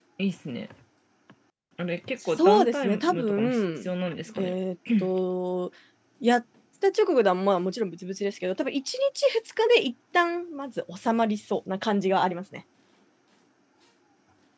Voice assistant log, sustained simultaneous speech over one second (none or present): present